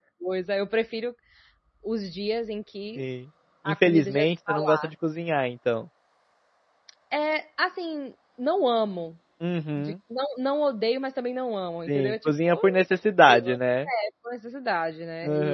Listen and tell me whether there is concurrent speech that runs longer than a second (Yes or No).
Yes